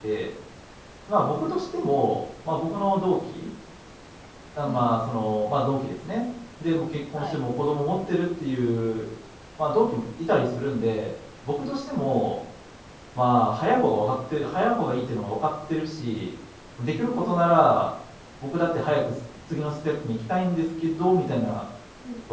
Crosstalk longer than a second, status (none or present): none